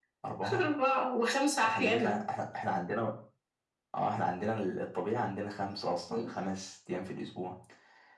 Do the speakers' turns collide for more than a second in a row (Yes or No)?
No